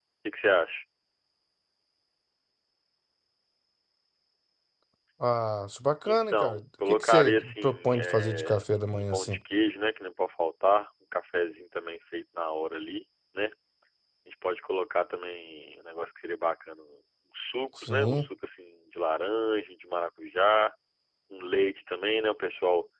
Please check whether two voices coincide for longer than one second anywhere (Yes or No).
Yes